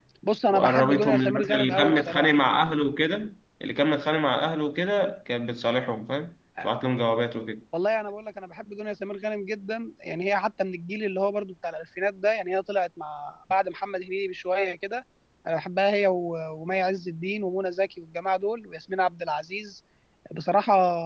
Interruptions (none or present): present